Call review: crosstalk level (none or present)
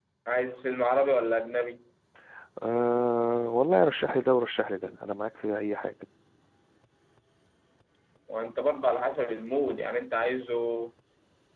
none